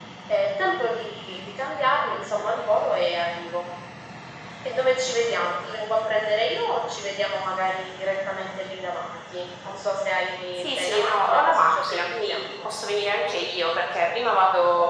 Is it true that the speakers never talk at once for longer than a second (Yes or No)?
No